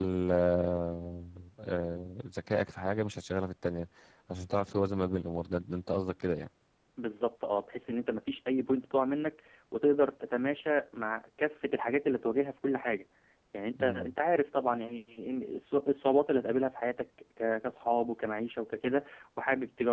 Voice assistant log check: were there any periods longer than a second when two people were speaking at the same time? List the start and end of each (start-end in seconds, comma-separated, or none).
none